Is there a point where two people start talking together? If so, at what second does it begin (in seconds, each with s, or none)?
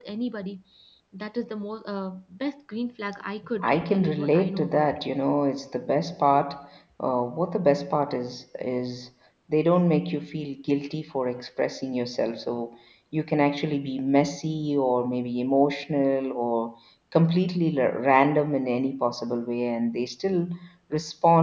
3.6 s